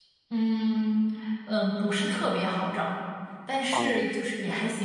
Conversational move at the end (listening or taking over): listening